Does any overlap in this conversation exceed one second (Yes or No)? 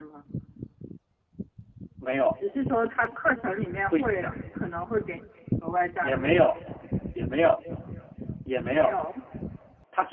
No